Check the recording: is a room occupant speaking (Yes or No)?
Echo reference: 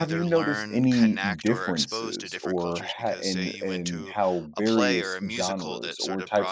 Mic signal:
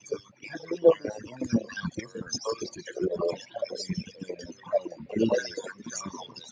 No